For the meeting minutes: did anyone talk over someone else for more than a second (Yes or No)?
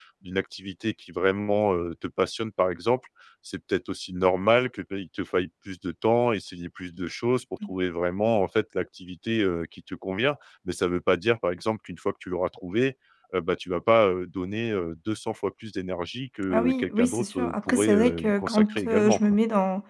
Yes